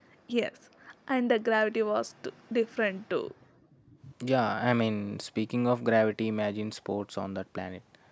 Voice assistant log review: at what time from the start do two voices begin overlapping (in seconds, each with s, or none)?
none